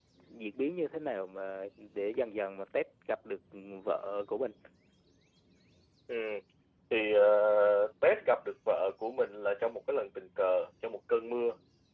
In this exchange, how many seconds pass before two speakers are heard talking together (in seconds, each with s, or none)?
none